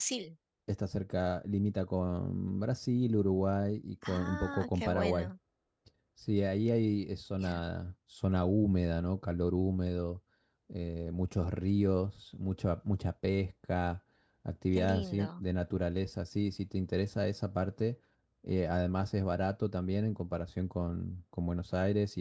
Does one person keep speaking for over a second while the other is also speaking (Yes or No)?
Yes